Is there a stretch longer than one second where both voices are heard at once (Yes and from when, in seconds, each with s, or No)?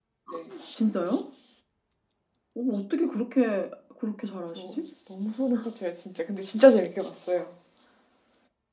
No